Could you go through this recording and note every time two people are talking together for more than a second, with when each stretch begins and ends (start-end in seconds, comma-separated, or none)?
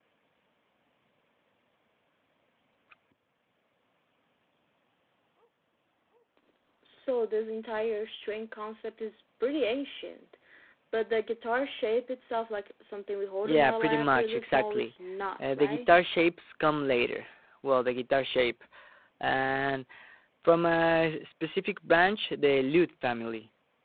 13.4-14.9